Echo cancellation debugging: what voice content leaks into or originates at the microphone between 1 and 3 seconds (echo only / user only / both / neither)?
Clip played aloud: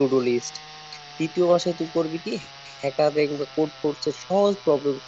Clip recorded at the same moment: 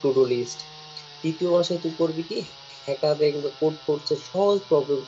echo only